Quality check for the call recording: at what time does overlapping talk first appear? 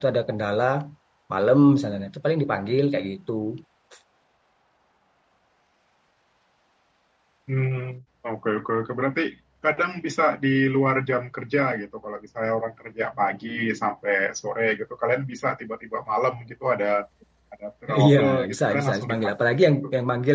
18.0 s

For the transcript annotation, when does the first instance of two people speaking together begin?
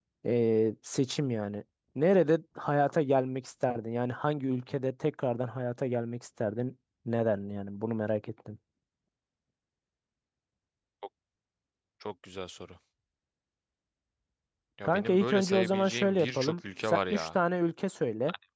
14.8 s

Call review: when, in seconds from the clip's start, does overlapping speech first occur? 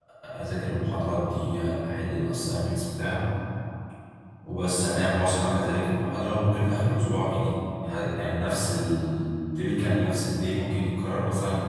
none

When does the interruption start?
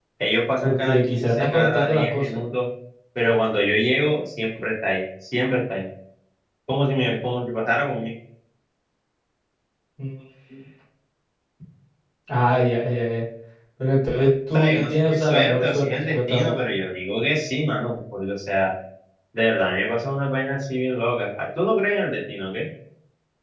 0.6 s

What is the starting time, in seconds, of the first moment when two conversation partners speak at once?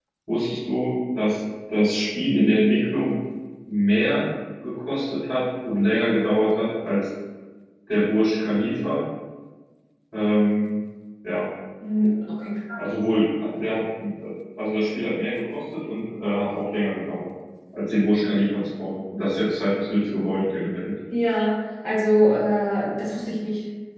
none

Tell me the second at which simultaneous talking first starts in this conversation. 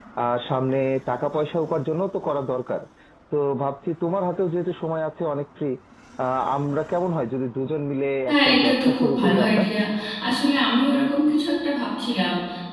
8.3 s

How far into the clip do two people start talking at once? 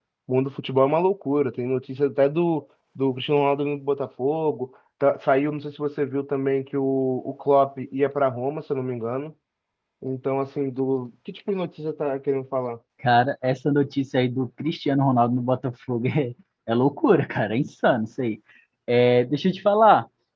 none

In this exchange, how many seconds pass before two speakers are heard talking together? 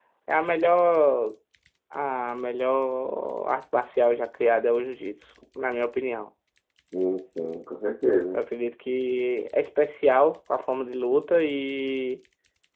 none

